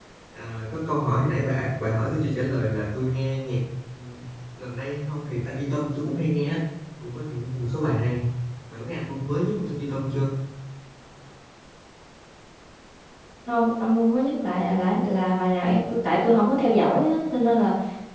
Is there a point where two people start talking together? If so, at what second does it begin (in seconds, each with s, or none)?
none